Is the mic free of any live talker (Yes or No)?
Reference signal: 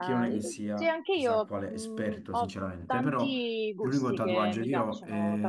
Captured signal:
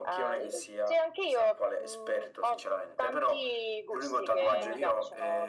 No